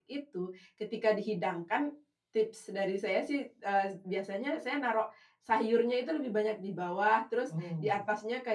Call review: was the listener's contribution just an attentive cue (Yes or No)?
Yes